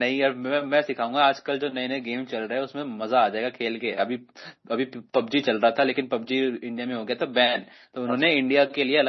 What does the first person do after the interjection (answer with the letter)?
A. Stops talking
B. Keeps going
B